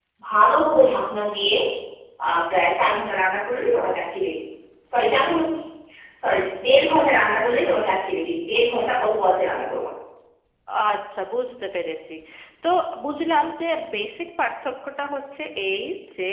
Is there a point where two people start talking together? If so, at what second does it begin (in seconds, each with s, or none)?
none